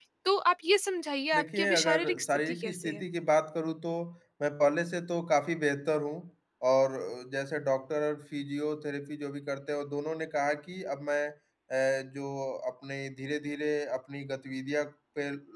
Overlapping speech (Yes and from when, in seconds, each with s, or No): Yes, from 1.3 s